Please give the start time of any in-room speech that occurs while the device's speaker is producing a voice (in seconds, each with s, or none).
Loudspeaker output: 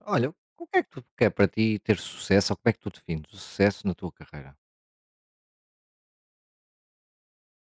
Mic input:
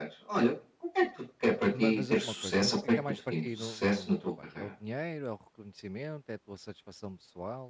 1.7 s